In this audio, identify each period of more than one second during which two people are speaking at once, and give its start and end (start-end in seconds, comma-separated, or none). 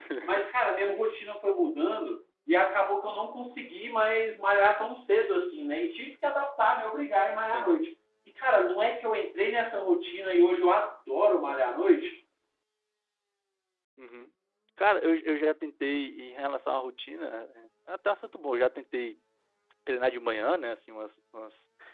none